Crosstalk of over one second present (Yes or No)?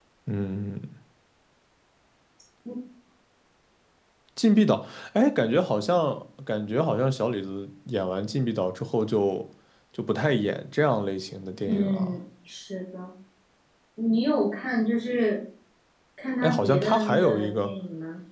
Yes